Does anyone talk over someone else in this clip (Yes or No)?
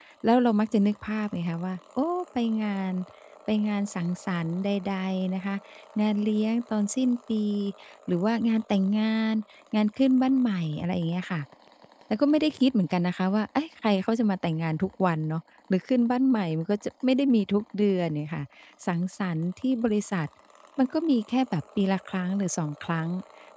No